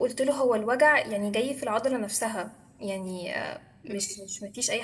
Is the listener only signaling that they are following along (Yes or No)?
Yes